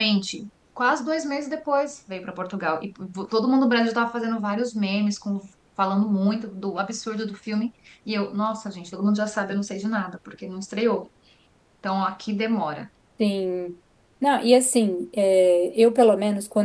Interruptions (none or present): none